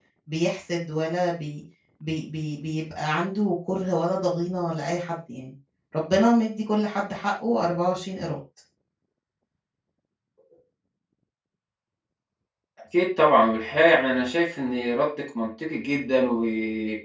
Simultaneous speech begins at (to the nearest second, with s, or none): none